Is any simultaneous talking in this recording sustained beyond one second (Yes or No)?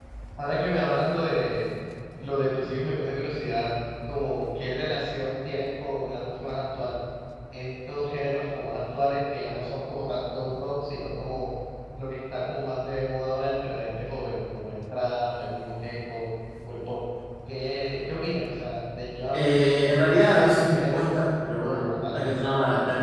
Yes